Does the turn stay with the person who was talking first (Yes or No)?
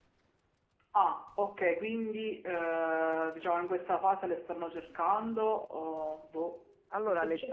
No